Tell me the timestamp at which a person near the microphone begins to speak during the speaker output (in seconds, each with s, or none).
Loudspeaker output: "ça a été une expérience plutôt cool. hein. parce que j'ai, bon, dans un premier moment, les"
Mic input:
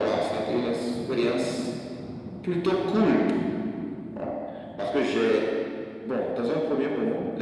none